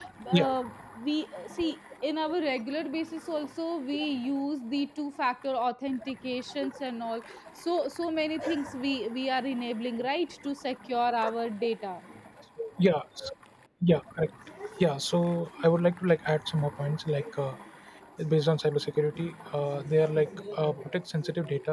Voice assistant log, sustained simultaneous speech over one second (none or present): none